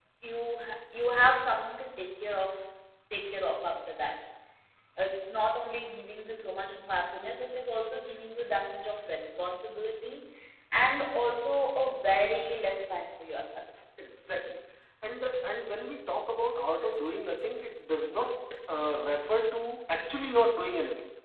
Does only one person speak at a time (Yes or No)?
Yes